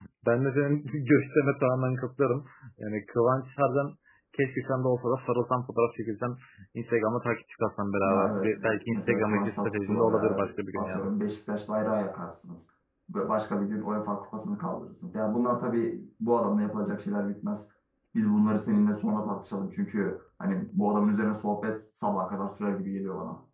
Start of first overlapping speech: 8.0 s

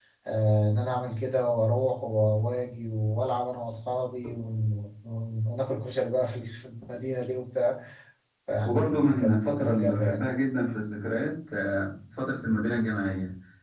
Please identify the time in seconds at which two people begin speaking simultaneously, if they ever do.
8.6 s

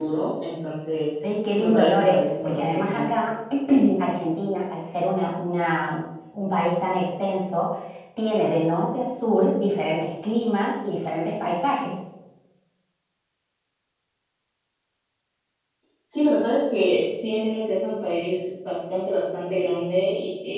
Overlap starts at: 1.6 s

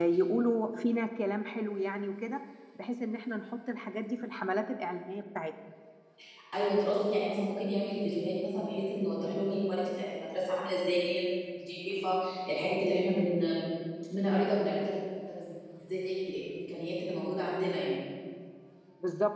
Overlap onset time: none

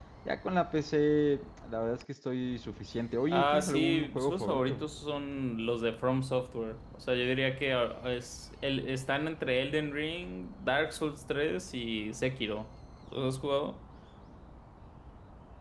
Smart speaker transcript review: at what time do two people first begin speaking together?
3.3 s

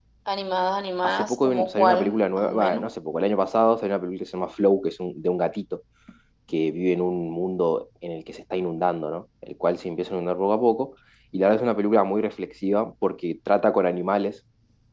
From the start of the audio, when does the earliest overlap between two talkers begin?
1.0 s

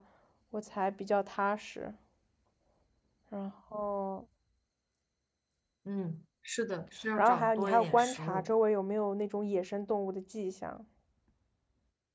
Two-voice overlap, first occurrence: 7.2 s

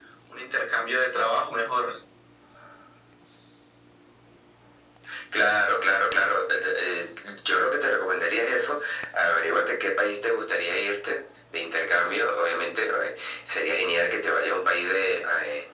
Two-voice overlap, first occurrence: none

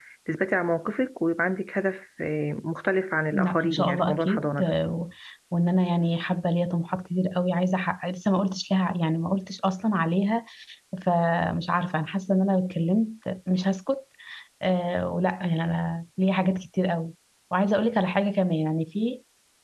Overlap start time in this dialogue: 3.3 s

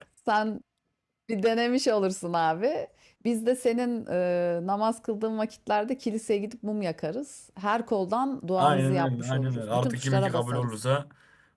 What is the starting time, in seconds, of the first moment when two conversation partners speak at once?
8.6 s

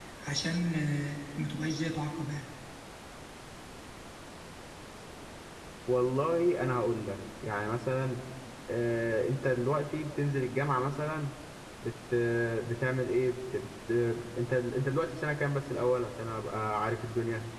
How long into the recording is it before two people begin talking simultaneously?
none

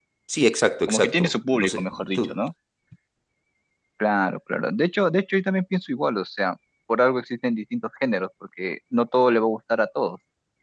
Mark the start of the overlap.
0.9 s

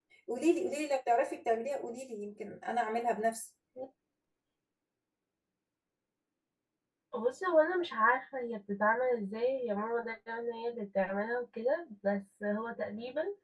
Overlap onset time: none

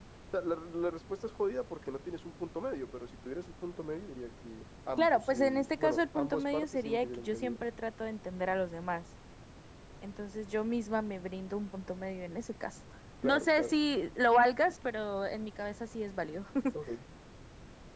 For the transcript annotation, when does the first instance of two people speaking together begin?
5.0 s

